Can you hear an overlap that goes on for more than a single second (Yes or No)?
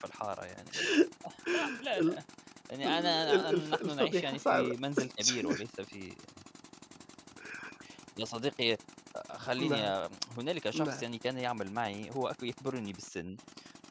Yes